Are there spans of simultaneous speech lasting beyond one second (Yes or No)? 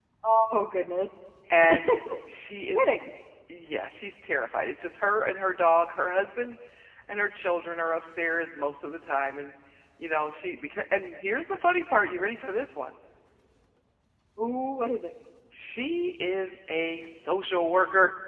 No